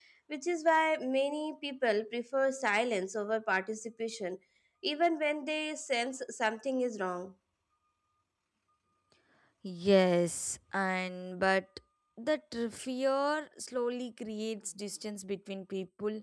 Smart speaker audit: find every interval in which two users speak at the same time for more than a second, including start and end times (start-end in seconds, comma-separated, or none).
none